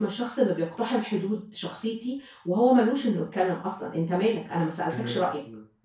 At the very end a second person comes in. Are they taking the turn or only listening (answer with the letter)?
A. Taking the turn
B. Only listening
A